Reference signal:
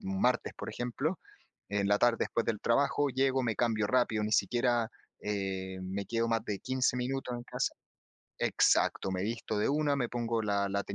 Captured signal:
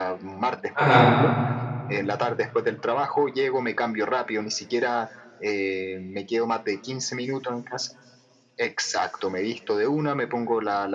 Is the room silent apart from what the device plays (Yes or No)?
No